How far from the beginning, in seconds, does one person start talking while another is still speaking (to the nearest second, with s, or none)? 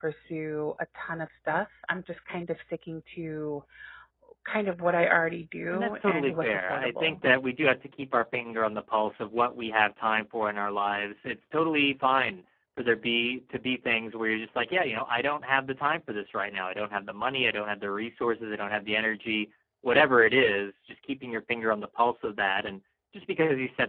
6 s